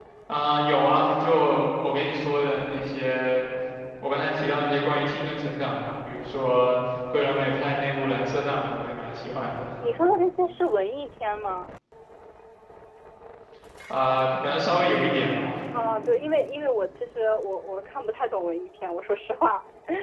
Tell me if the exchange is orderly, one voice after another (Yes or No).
Yes